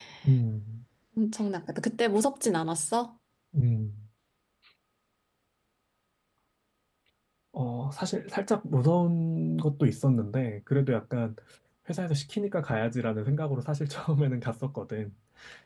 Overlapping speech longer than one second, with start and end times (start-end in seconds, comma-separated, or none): none